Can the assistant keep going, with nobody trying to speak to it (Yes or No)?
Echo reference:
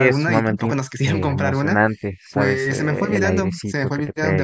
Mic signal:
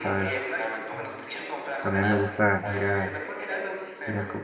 No